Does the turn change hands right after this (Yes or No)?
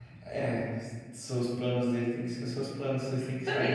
Yes